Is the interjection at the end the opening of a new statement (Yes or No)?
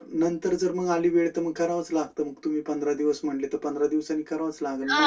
Yes